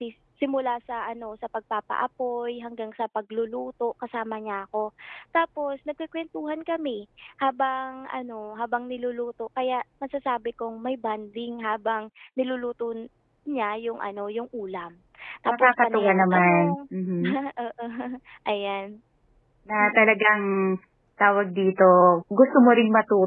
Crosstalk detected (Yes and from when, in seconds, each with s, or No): Yes, from 15.5 s